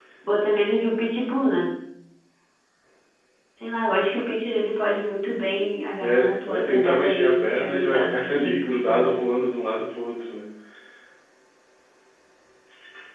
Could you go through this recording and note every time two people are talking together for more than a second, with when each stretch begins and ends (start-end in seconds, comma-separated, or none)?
6.0-9.2